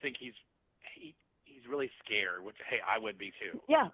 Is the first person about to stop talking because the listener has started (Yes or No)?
Yes